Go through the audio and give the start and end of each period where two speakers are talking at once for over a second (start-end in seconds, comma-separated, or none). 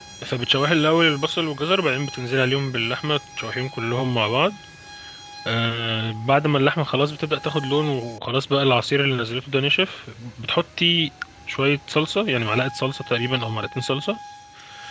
none